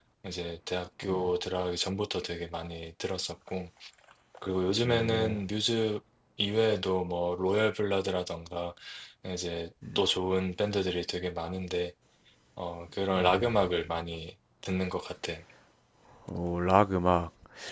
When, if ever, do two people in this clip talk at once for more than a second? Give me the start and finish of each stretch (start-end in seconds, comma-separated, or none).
none